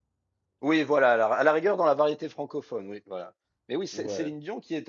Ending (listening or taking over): listening